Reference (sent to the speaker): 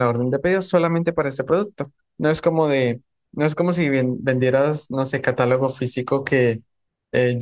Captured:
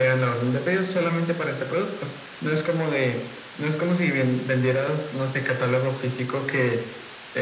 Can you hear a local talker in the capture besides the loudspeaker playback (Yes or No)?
No